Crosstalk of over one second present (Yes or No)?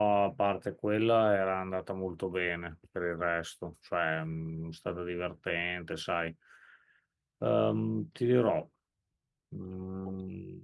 No